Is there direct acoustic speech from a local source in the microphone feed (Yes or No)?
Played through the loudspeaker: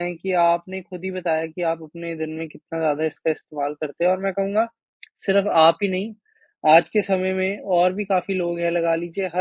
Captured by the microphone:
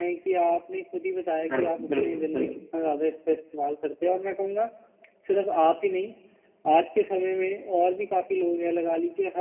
Yes